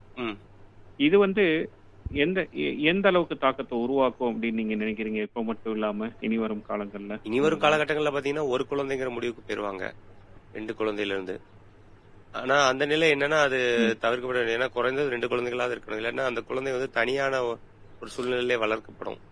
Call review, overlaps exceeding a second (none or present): none